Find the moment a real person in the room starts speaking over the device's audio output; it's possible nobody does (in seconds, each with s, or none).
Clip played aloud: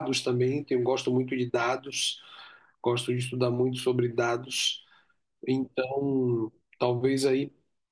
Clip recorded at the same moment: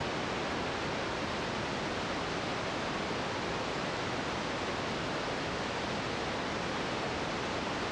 none